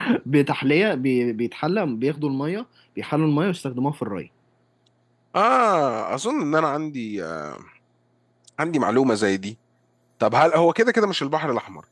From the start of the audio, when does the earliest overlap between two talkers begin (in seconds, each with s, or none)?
none